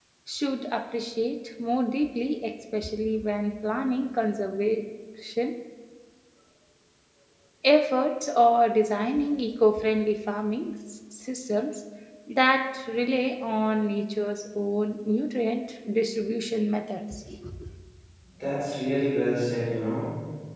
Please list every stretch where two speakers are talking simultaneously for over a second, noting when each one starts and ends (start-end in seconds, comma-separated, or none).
none